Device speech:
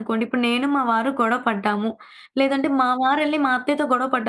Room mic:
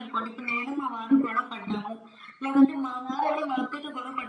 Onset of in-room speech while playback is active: none

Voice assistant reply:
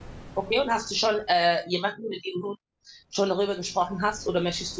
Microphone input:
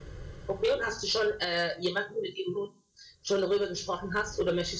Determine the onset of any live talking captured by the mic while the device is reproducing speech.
none

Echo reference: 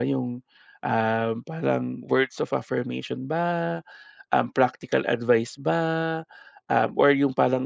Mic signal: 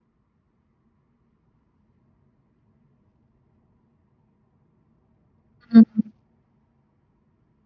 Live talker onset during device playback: 5.8 s

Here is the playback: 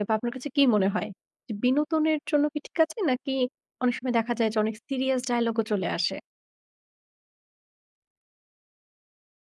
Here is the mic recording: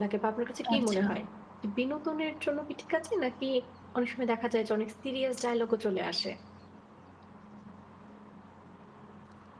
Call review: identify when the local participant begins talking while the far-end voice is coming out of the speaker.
0.7 s

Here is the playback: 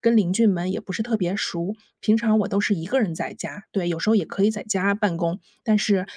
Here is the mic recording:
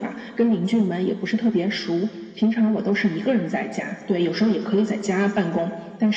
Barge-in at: none

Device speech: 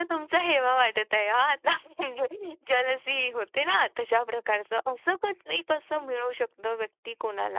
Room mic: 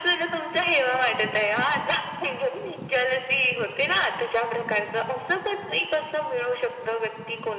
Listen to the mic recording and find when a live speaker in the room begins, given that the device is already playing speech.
none

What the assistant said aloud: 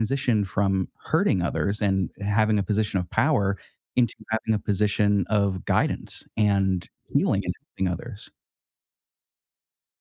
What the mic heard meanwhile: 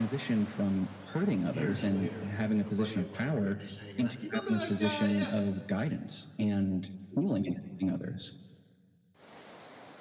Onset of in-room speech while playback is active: 1.2 s

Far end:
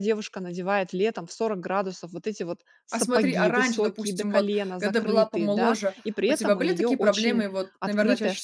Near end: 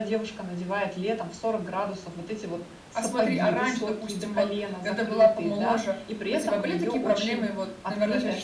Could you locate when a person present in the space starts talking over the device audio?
none

